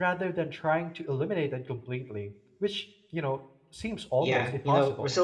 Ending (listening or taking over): taking over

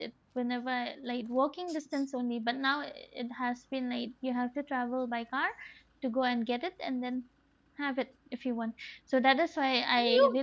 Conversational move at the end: taking over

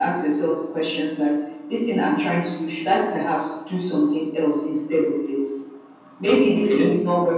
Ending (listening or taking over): listening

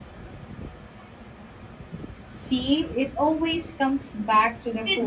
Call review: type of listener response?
taking over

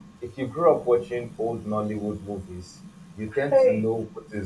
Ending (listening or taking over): listening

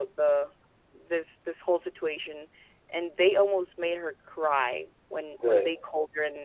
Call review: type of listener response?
listening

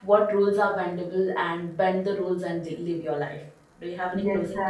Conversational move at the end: taking over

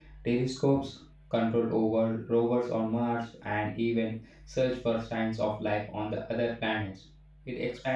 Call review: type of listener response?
listening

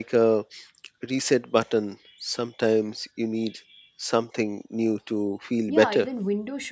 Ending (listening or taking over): taking over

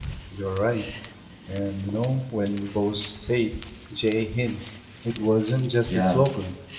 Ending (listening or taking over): listening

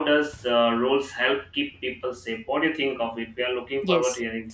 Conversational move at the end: taking over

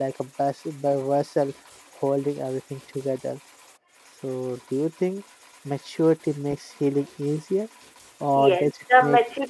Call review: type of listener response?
taking over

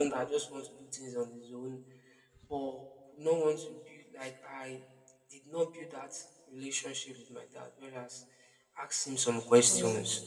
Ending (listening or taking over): listening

